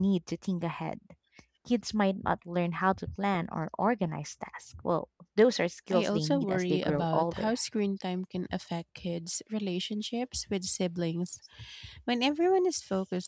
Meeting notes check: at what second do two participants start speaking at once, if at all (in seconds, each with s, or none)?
5.9 s